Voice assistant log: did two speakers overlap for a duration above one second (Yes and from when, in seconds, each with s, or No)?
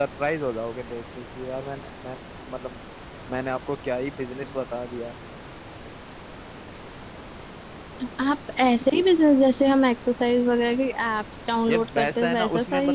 Yes, from 11.7 s